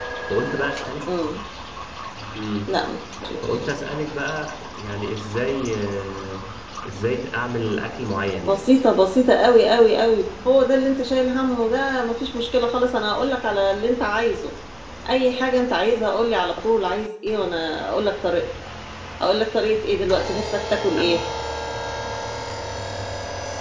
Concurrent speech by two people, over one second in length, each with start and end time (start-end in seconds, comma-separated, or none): none